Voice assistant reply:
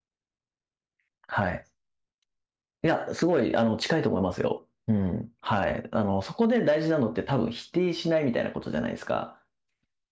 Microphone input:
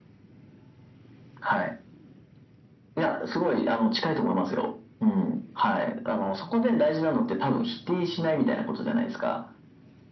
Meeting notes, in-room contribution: none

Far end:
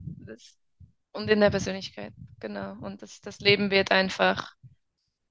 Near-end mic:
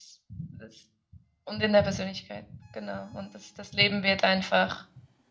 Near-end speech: none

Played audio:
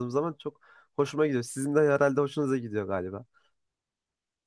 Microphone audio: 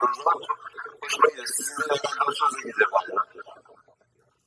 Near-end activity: none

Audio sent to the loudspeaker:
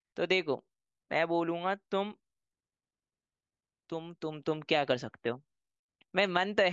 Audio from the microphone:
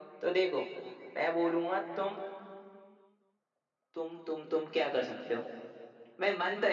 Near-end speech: none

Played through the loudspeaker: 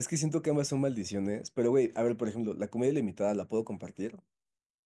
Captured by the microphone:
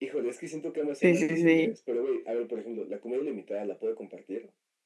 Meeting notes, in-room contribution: present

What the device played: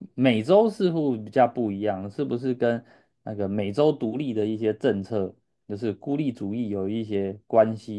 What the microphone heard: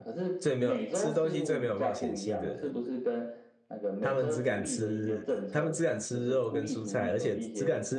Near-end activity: present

